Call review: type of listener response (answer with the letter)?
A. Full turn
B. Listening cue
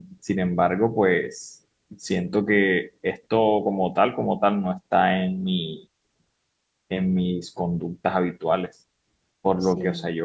B